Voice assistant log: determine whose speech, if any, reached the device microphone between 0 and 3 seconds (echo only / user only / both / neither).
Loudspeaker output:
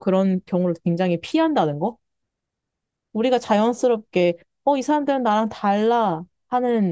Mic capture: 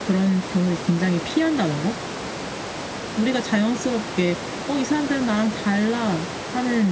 echo only